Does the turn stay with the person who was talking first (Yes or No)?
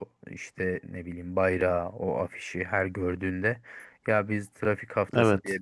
Yes